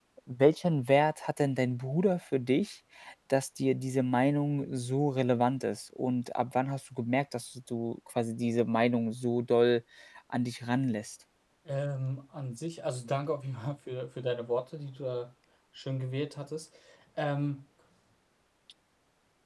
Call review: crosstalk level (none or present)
none